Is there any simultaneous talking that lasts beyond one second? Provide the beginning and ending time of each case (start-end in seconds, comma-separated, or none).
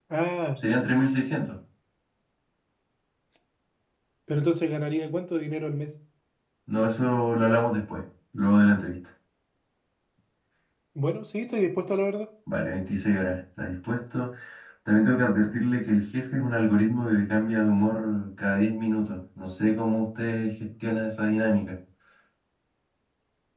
none